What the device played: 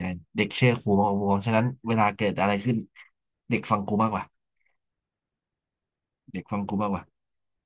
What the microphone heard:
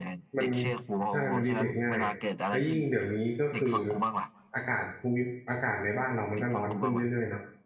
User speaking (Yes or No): Yes